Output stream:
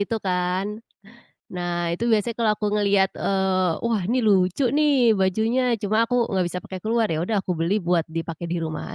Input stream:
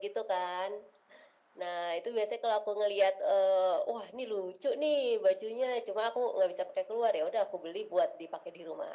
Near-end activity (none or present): none